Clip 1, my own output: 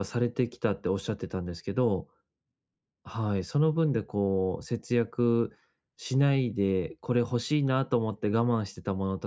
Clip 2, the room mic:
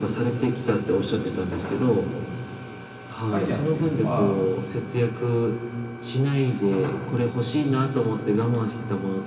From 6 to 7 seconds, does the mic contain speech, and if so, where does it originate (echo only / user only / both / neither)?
echo only